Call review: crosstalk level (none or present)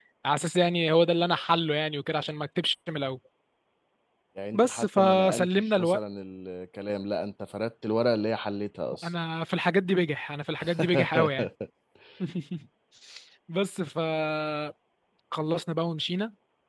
present